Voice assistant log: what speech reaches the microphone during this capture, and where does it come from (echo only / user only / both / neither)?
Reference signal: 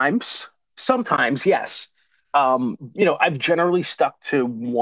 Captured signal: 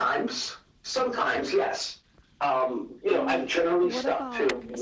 both